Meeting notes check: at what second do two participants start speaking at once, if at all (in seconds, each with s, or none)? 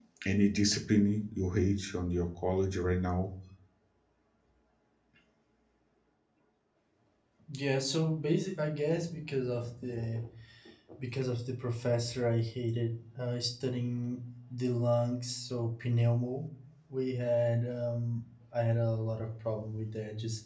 none